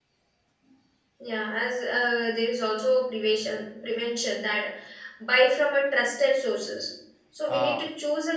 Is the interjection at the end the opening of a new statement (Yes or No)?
No